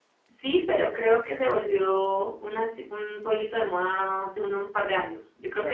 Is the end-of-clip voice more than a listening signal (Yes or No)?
No